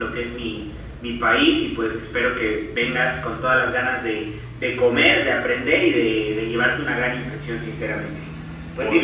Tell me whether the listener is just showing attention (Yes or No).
No